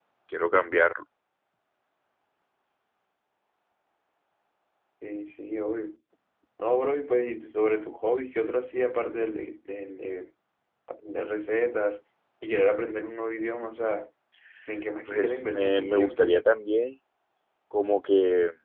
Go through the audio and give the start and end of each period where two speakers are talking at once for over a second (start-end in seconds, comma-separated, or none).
15.1-16.3